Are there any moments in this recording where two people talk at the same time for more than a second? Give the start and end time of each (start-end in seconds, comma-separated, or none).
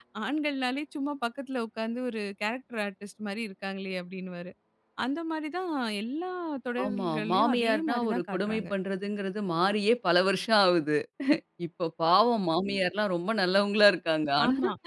6.8-8.7